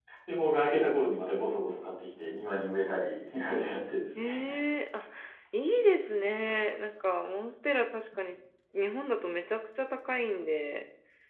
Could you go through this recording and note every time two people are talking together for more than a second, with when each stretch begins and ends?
none

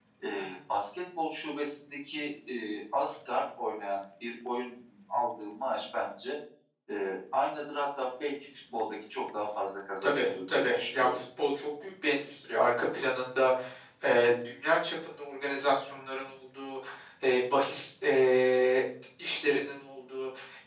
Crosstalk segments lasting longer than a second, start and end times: 10.0-11.2

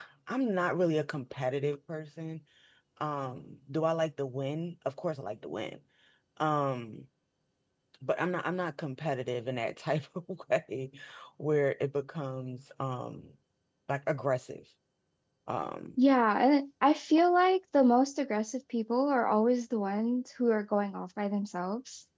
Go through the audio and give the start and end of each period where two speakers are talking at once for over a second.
none

